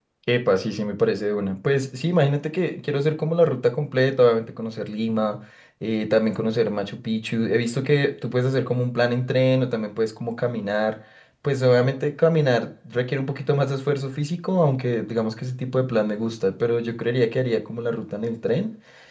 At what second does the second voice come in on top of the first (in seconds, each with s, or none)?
none